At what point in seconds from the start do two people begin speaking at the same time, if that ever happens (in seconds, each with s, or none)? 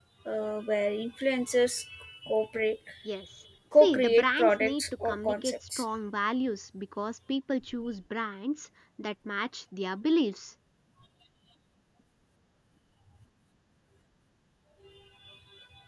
3.8 s